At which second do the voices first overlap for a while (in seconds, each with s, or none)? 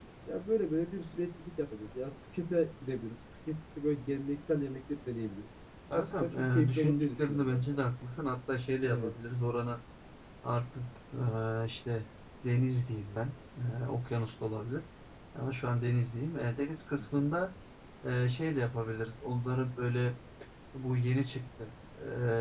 5.9 s